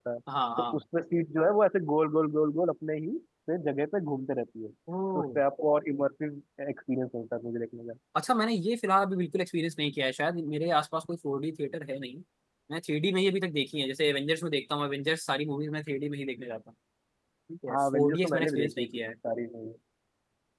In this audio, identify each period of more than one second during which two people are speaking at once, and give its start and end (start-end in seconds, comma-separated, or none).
17.7-19.0